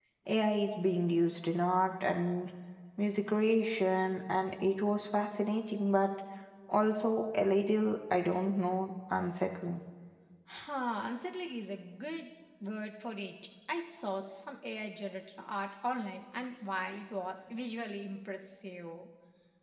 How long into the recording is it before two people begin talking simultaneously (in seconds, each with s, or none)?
none